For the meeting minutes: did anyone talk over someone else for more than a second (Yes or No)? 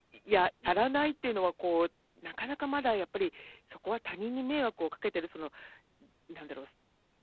No